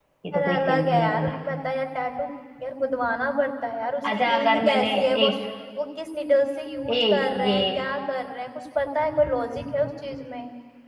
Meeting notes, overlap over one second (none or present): present